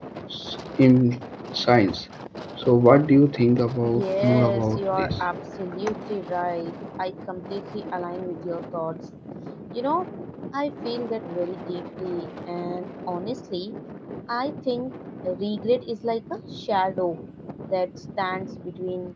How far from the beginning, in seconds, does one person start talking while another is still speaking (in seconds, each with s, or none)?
3.8 s